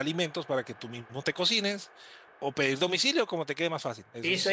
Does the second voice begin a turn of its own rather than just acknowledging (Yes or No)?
Yes